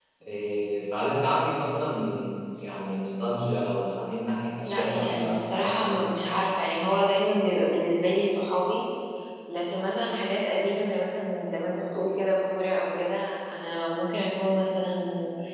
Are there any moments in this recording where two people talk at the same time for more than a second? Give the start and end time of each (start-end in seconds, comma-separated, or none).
4.7-5.9